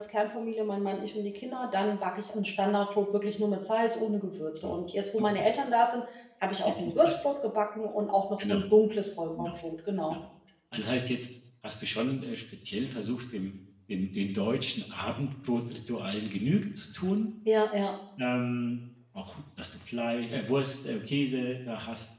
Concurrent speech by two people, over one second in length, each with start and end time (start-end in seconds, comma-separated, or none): none